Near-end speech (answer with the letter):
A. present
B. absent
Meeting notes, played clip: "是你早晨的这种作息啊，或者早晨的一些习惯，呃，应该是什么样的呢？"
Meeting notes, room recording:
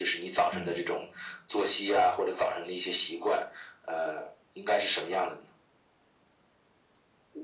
A